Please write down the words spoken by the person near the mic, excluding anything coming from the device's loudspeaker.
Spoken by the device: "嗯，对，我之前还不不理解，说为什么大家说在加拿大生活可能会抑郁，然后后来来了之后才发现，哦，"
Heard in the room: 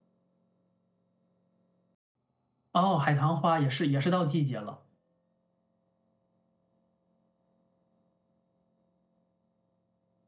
哦，海棠花也是也是到季节了。

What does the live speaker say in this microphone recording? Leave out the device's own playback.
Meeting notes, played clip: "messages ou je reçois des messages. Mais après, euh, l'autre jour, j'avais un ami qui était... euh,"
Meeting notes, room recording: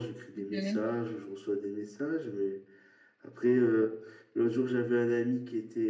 Mhm,

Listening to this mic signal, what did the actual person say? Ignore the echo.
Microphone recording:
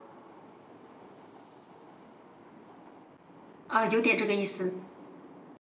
啊，有点这个意思。

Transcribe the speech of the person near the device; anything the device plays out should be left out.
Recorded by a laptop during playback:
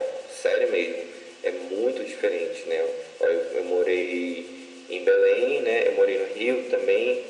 none

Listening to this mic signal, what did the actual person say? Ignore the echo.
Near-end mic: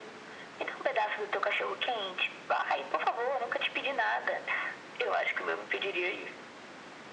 none

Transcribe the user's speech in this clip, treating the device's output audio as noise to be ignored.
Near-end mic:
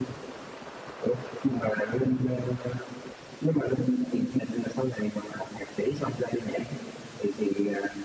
none

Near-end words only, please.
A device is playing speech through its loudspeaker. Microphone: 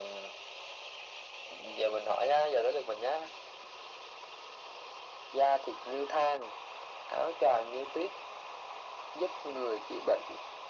none

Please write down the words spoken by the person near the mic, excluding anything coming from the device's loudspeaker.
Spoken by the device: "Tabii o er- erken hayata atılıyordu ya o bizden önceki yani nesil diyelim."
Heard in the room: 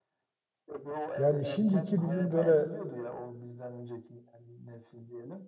Yani şimdiki bizim böyle

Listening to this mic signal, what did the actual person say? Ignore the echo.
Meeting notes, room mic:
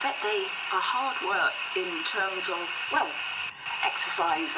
none

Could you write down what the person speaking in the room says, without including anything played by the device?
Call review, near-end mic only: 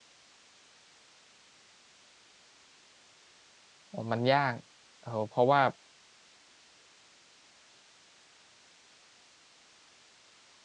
อ๋อมันยากเออเพราะว่า

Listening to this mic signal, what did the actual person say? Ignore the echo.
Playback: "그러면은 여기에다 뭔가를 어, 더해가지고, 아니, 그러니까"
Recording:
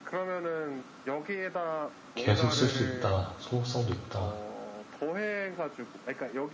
계속 쓸 수 있다. 소모성도 있다.

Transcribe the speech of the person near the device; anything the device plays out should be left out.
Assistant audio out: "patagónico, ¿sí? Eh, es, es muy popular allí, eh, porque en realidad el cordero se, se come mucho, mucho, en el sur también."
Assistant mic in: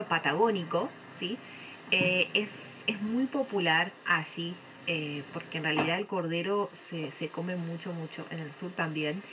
none

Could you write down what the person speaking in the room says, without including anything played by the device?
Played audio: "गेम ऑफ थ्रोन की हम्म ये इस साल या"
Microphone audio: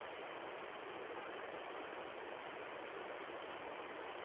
none

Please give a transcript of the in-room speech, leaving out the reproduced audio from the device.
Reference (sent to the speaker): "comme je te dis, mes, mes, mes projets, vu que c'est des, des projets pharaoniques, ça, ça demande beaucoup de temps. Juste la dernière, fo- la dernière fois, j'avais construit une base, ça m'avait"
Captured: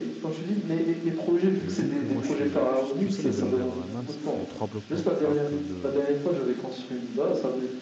Et vu que moi je suis. Tu, tu sais, les Undermans font trois blocs d'eau, alors que le,

